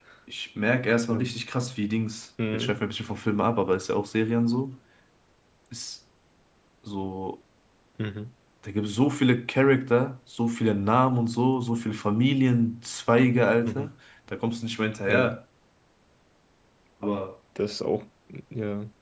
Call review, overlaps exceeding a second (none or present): none